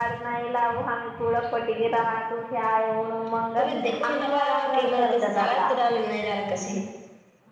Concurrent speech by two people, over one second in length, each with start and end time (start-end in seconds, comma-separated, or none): 3.6-5.7